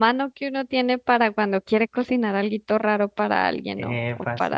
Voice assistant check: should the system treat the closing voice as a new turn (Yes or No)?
No